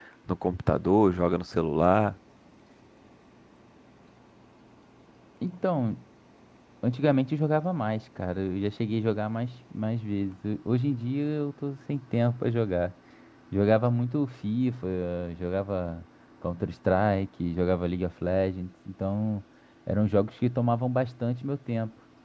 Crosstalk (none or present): none